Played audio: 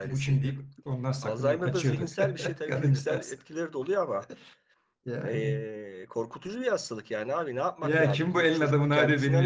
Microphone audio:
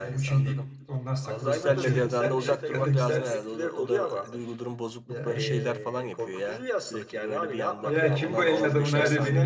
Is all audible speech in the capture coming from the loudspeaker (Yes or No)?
No